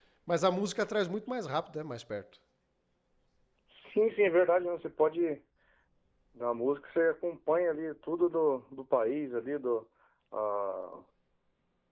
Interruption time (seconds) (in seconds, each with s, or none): none